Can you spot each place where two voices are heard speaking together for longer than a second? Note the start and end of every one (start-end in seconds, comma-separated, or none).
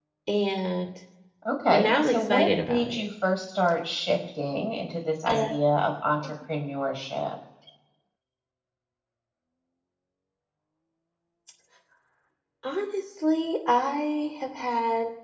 1.7-3.0